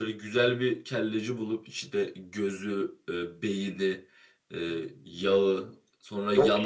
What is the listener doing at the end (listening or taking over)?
listening